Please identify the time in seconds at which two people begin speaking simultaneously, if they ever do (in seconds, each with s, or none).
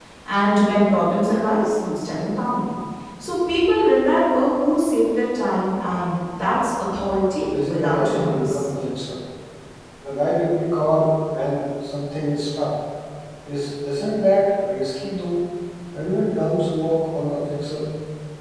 7.4 s